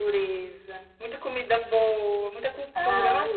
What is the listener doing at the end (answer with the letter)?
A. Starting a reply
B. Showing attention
B